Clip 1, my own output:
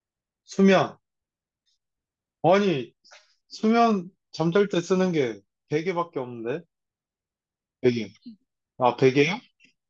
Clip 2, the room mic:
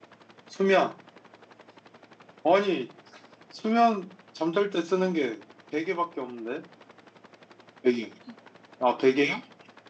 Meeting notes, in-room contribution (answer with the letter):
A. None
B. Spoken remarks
A